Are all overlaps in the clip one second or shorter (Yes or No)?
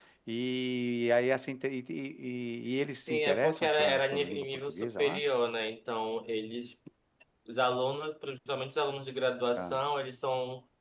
No